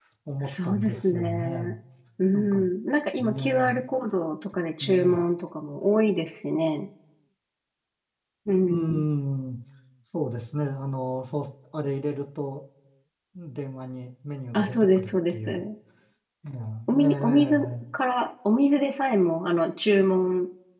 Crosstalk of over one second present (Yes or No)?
Yes